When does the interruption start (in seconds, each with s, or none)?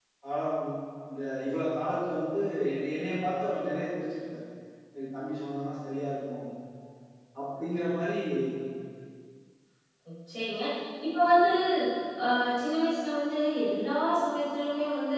none